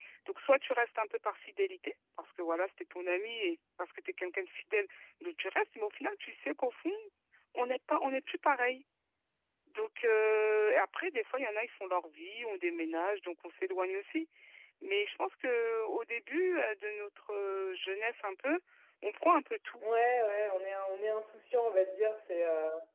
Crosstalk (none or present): none